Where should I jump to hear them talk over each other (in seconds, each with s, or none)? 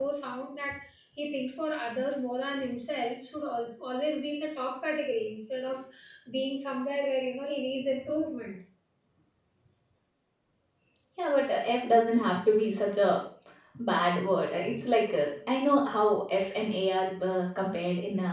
none